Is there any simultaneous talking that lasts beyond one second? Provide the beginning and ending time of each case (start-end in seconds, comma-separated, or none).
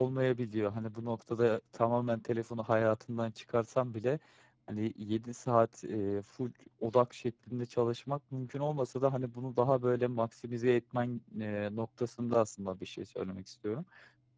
none